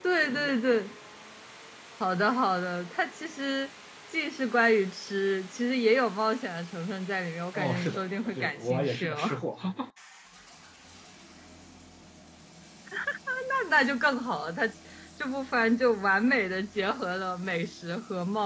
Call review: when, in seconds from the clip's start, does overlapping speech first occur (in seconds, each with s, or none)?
7.5 s